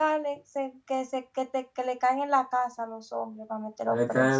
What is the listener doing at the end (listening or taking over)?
taking over